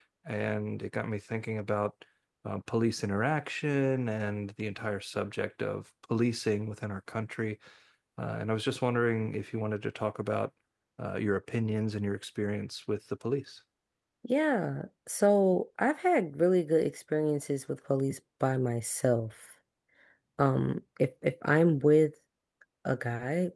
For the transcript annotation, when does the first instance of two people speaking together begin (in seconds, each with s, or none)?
none